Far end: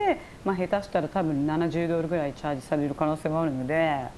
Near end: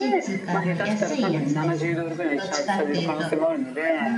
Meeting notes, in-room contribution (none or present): present